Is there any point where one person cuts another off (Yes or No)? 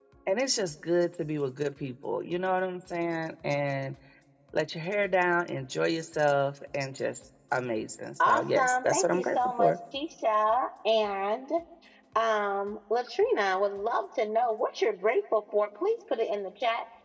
Yes